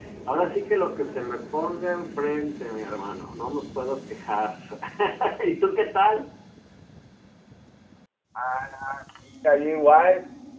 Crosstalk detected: No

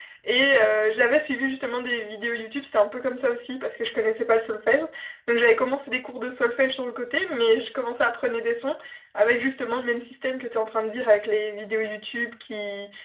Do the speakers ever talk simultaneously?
No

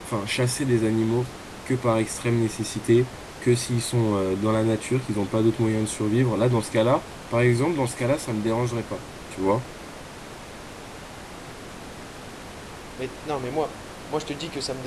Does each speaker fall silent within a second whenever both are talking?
Yes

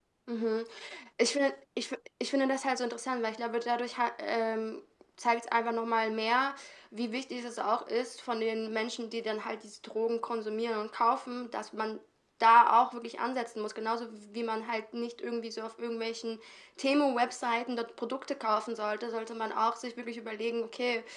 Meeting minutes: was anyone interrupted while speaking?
No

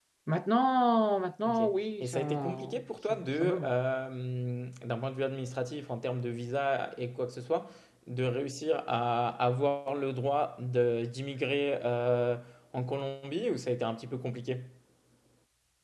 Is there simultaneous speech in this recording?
Yes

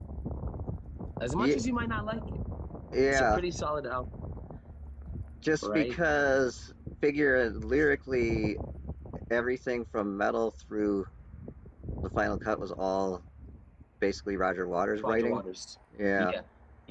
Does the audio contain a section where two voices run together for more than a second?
No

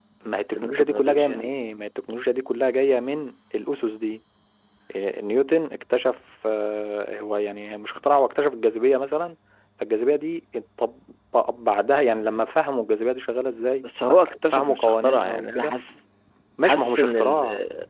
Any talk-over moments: Yes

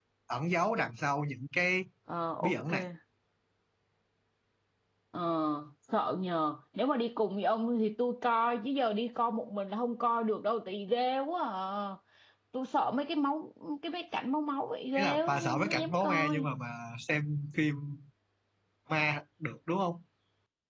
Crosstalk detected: Yes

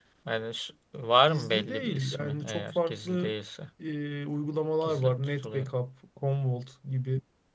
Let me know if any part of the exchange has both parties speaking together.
Yes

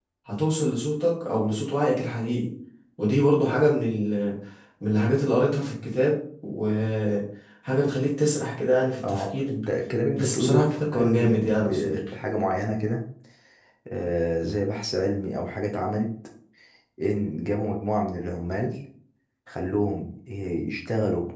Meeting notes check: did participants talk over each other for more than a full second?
Yes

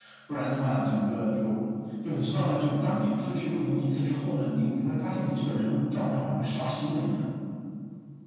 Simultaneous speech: No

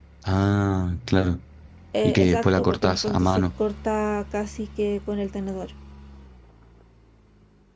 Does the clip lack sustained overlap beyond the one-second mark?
No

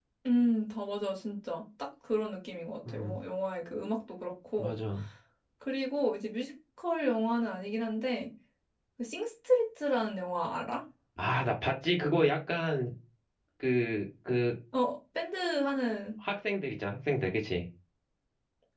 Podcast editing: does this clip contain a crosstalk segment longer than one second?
No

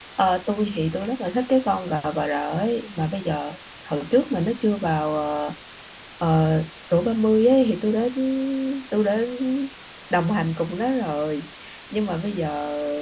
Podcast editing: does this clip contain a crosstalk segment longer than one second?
No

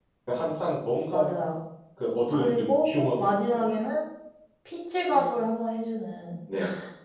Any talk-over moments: Yes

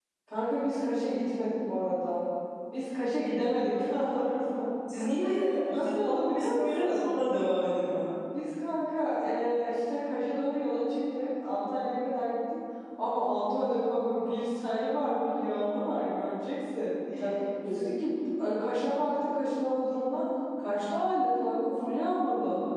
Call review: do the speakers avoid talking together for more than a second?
No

